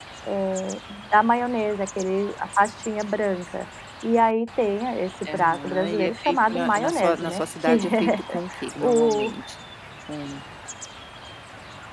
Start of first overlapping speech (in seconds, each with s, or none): 5.2 s